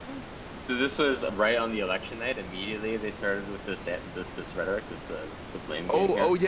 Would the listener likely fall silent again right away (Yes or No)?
No